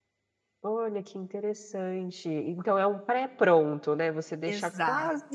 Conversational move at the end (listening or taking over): listening